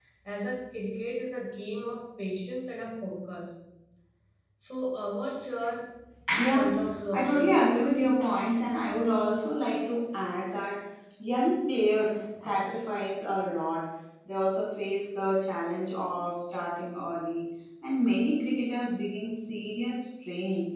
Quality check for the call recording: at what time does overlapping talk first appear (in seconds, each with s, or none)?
6.5 s